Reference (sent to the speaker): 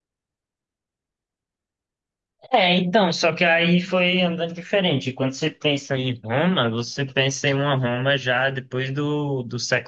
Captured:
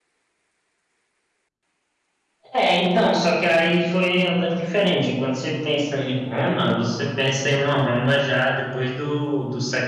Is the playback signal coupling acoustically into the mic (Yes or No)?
Yes